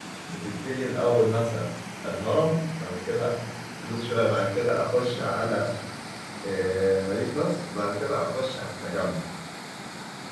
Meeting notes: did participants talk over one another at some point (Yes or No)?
No